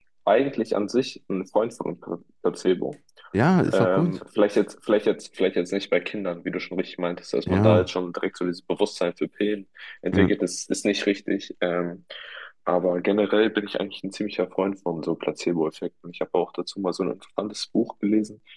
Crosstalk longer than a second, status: none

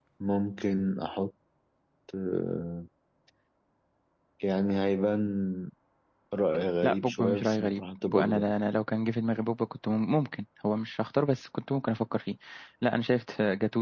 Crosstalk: present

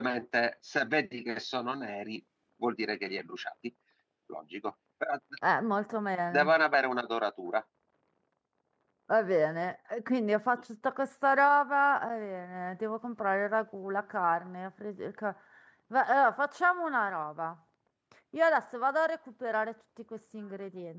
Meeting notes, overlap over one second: none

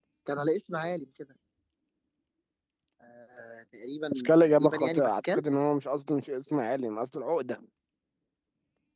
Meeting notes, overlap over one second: present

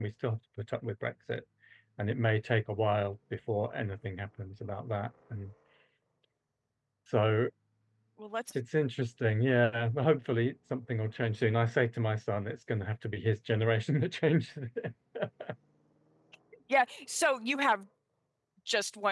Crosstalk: none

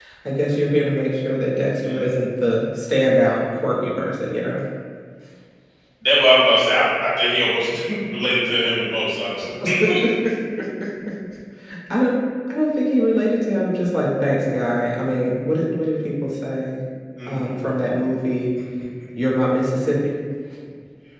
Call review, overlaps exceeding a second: none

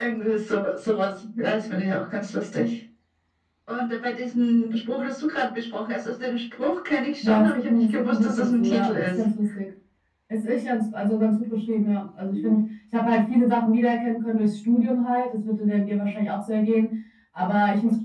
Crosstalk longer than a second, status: present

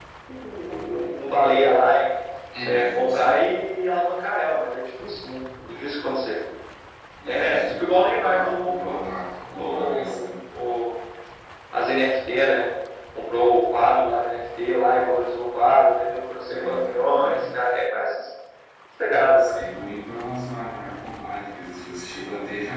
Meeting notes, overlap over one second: present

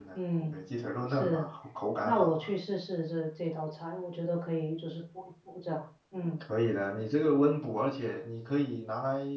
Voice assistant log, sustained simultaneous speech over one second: none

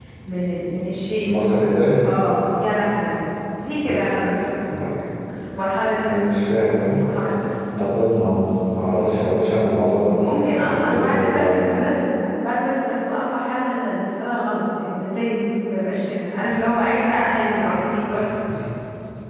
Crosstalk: present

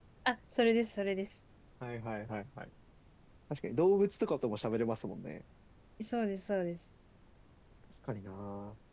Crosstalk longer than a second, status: none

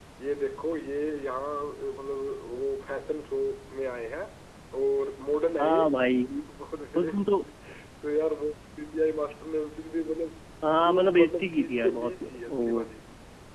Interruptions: present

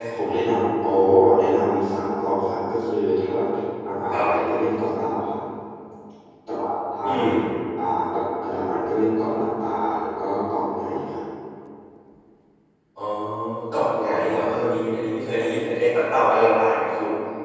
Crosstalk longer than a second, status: none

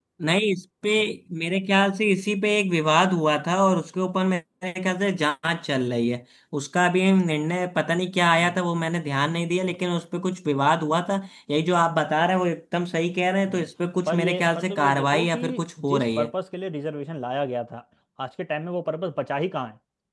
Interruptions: present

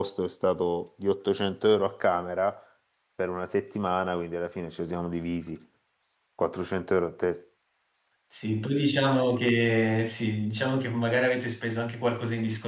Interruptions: none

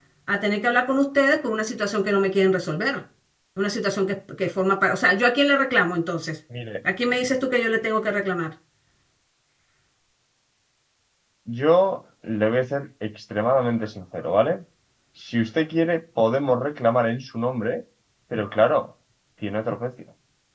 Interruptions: none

